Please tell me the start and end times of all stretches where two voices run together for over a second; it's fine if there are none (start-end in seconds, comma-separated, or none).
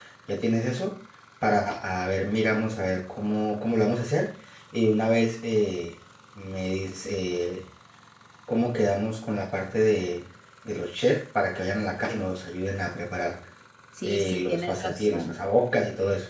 14.0-15.4